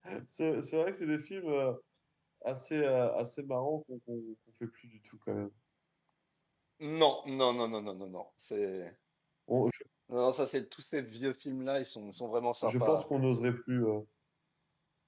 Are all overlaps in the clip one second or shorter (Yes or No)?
Yes